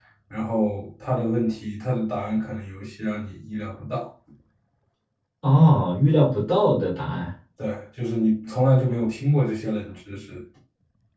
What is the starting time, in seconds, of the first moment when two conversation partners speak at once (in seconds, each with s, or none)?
none